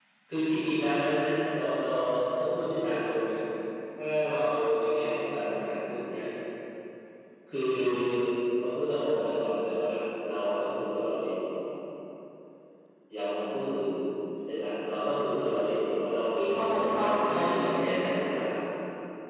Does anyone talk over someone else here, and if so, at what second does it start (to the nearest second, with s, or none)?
16 s